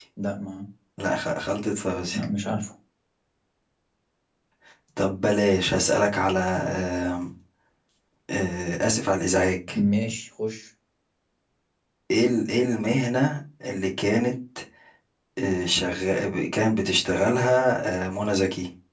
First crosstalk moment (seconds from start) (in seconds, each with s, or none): none